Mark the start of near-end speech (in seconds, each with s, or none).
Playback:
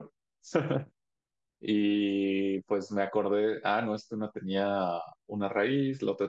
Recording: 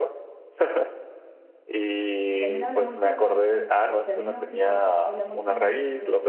2.3 s